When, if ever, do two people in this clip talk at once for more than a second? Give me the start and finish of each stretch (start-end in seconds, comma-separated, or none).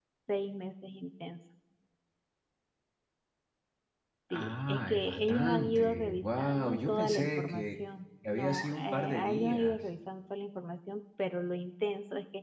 4.3-7.6, 8.3-9.8